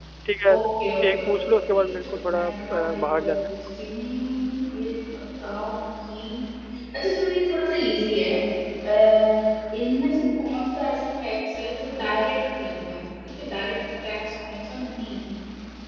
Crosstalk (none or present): present